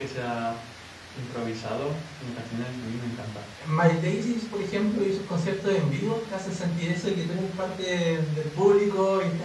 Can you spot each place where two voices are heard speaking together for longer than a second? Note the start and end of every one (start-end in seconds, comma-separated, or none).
none